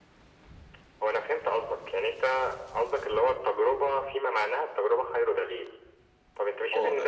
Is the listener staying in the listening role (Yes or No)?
Yes